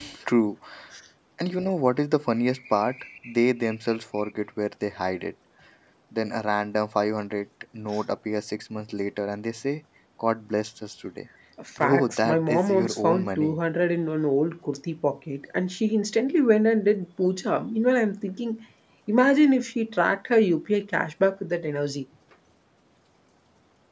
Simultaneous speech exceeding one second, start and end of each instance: 11.8-13.6

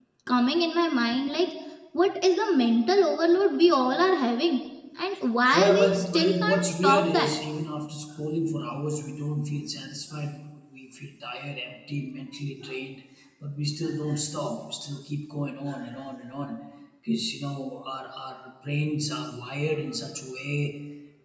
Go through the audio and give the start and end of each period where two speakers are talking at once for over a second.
5.5-7.3

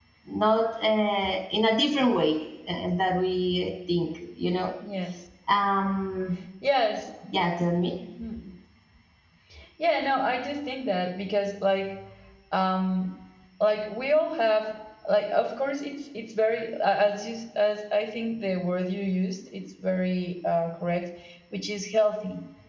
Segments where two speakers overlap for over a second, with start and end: none

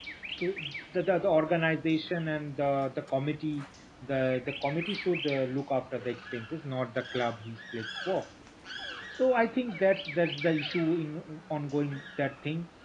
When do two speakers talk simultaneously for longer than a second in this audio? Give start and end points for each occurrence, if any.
none

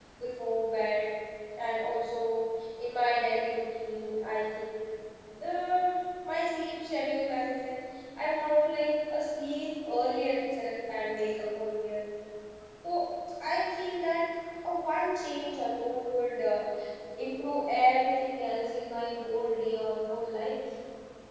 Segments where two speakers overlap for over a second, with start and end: none

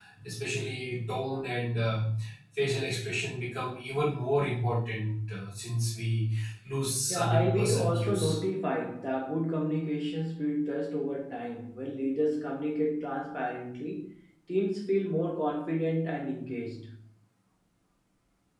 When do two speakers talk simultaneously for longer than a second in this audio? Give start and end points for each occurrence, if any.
7.1-8.4

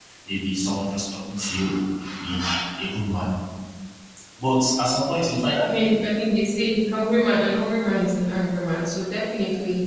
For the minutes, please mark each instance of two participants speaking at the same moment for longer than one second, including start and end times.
none

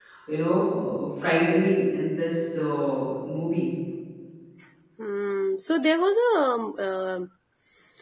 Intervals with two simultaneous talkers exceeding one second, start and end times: none

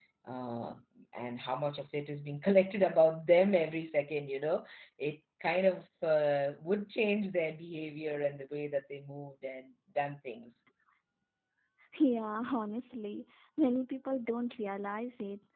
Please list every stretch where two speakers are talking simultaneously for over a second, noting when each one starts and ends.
none

